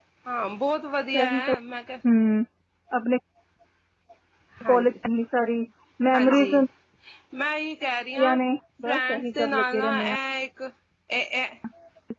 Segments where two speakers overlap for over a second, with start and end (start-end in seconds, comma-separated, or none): 8.8-10.2